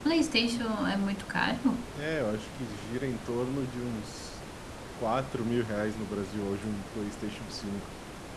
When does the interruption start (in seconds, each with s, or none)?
none